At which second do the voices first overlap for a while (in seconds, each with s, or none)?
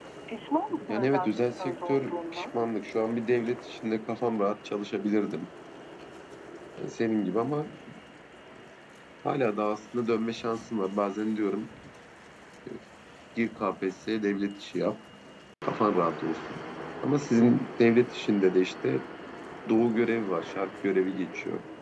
0.9 s